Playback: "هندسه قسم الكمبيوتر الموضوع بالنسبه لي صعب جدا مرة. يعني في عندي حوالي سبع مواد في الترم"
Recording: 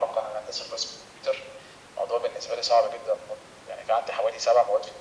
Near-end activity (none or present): none